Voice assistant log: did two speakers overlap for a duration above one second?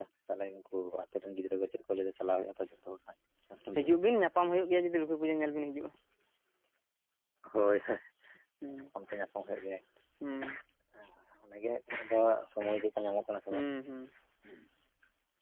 No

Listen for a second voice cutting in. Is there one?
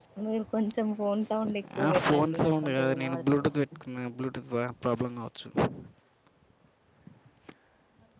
Yes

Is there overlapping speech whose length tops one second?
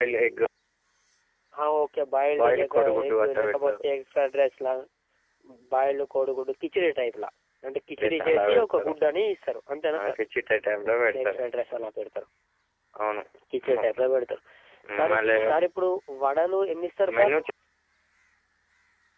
Yes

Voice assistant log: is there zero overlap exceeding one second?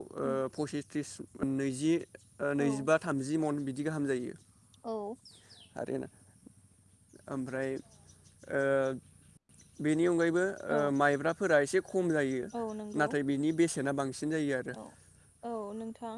Yes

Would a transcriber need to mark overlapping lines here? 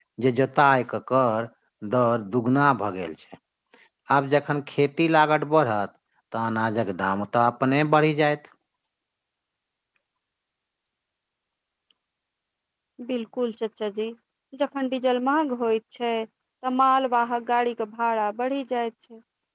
No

